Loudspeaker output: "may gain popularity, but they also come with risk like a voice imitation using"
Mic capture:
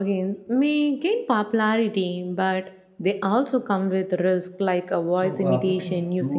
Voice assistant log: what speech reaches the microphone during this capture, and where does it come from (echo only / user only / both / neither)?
both